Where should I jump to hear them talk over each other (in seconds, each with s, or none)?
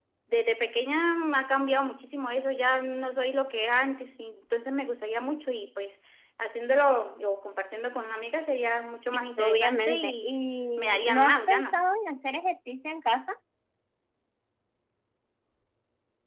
9.1 s